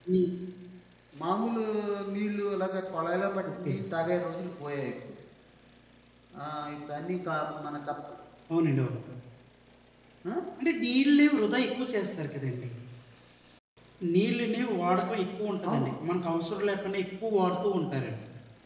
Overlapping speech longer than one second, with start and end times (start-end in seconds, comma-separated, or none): none